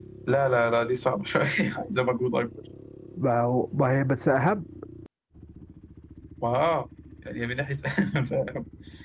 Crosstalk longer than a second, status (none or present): none